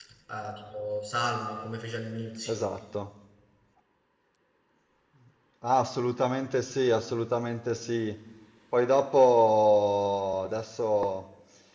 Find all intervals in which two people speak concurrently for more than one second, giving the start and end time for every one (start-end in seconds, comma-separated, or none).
none